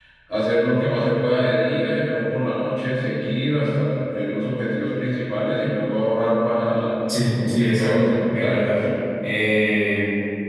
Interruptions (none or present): present